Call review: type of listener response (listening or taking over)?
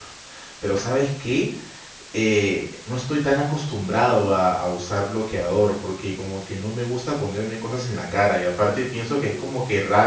listening